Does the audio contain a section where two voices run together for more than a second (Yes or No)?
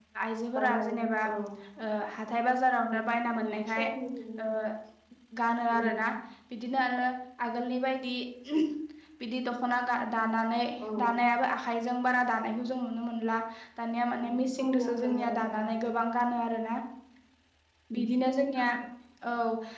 Yes